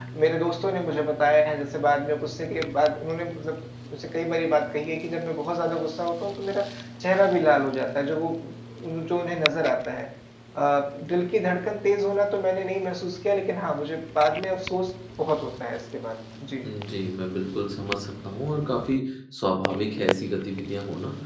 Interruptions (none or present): none